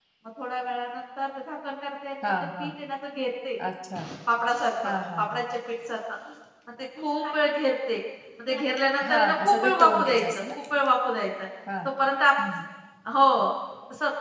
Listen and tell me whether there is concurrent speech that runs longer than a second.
Yes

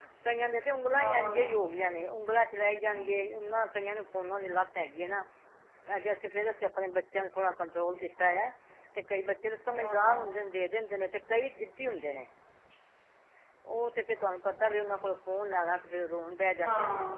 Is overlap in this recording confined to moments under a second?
Yes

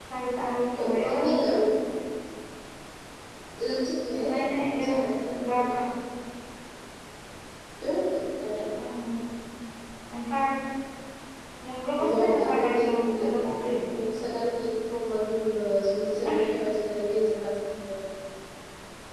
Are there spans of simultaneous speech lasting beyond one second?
Yes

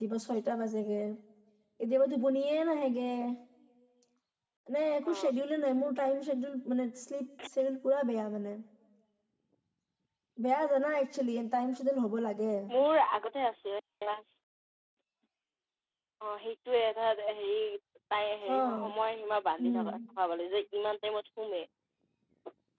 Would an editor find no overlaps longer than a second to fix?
Yes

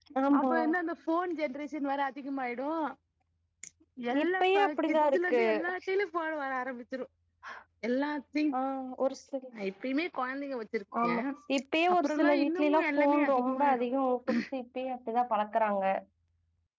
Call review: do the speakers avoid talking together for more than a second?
No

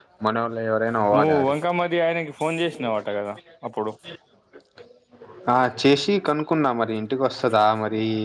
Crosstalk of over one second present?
No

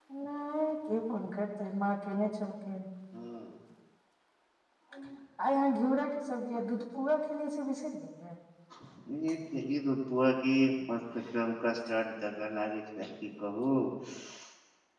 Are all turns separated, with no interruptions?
Yes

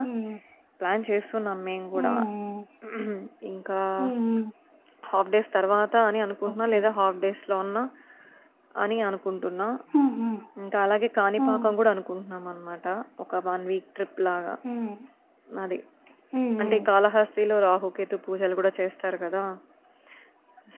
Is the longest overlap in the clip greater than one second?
No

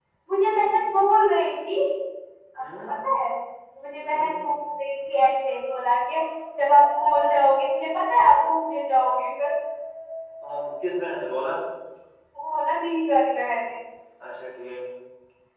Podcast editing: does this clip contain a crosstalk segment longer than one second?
No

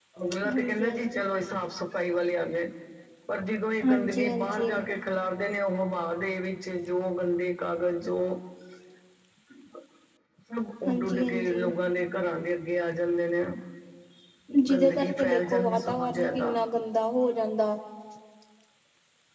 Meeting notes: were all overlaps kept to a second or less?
No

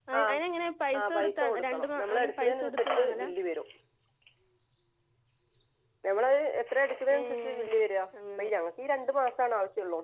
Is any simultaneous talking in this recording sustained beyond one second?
Yes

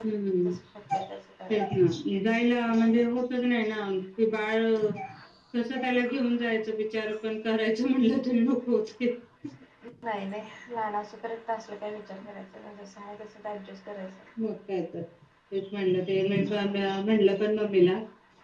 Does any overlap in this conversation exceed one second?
No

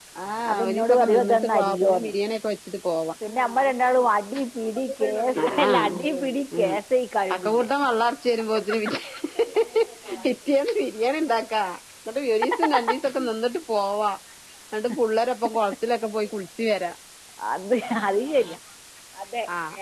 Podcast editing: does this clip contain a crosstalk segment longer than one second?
Yes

